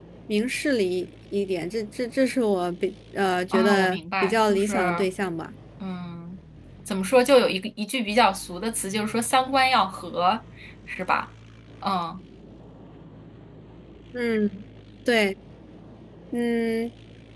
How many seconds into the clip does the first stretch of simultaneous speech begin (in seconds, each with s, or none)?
3.5 s